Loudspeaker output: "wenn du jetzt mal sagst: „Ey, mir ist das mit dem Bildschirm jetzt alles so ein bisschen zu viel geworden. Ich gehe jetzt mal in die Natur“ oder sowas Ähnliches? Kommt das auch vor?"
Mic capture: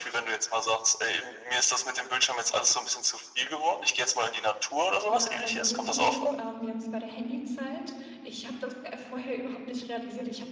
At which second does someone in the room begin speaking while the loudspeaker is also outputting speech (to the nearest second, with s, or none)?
5 s